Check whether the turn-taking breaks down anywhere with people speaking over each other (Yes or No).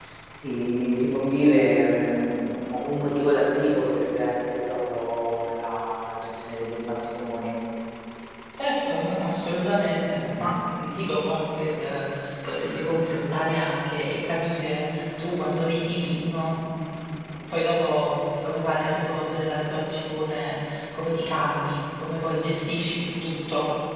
No